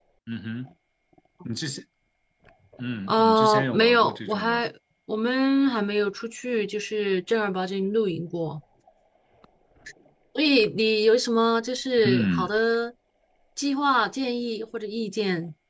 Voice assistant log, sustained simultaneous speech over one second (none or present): present